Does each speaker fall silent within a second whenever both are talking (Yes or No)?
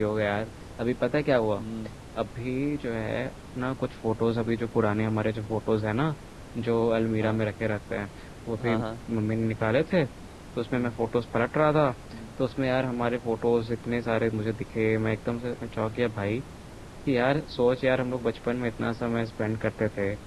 Yes